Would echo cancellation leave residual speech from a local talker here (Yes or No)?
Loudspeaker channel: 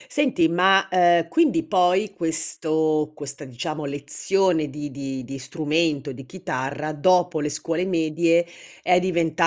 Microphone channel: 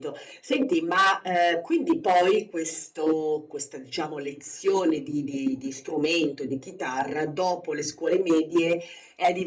No